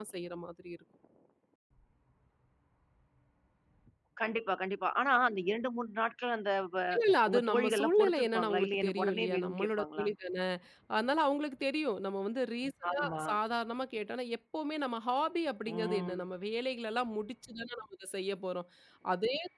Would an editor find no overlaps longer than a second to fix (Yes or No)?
No